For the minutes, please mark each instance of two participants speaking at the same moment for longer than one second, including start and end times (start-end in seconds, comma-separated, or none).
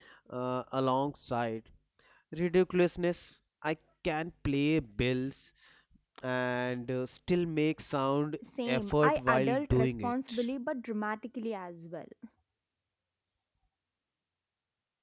8.7-10.5